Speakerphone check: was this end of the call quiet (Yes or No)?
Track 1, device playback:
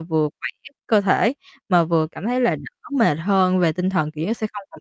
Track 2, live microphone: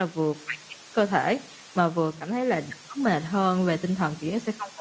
Yes